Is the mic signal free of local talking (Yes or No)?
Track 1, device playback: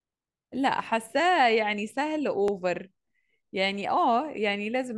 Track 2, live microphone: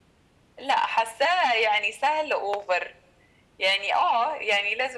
Yes